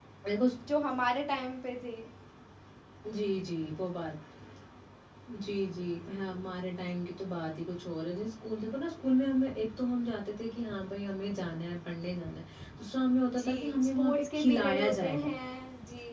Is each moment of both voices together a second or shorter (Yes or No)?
No